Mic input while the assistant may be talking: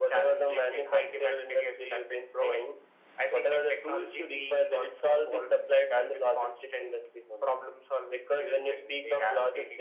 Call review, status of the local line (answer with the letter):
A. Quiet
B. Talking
A